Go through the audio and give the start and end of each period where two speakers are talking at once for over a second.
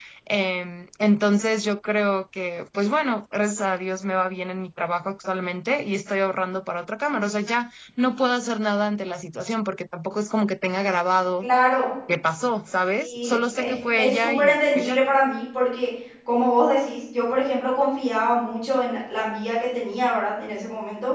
13.0-15.0

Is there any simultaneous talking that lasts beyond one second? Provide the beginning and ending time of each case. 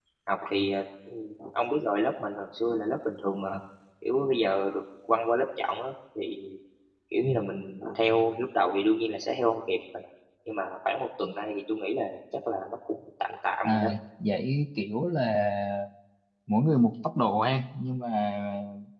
none

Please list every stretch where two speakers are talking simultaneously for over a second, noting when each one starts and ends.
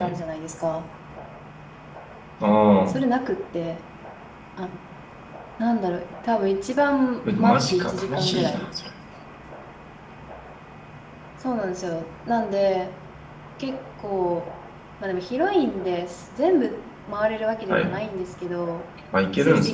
7.4-8.7

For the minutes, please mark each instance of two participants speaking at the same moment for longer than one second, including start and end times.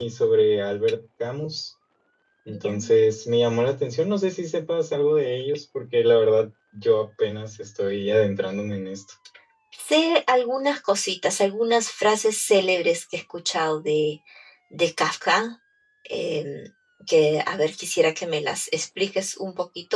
none

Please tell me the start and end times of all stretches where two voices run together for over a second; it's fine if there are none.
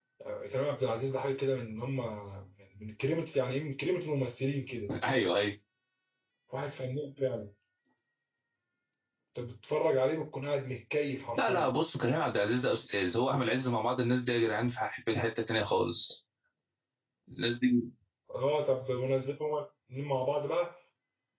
none

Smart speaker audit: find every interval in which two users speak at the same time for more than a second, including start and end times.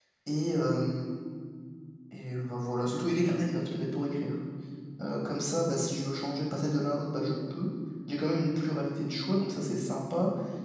none

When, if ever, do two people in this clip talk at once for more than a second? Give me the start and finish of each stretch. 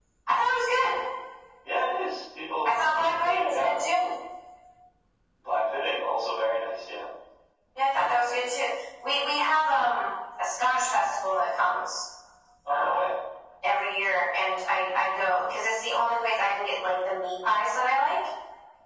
2.6-4.1

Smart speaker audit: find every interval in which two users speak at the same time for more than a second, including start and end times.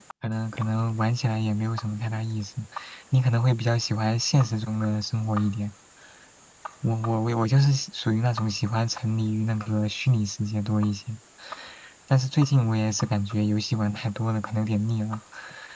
none

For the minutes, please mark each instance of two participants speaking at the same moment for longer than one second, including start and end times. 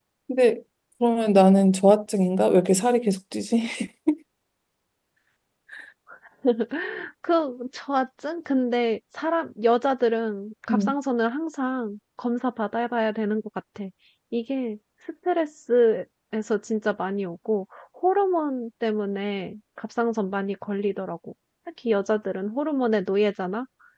none

